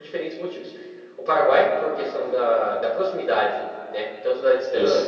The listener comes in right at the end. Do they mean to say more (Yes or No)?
No